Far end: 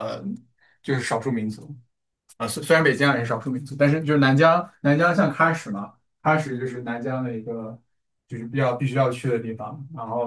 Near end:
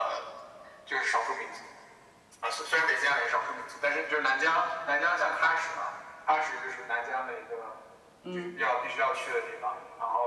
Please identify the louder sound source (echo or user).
echo